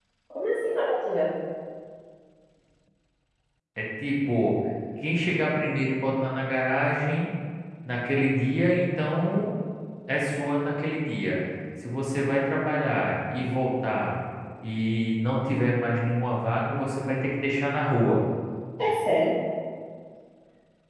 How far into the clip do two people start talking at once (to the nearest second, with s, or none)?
none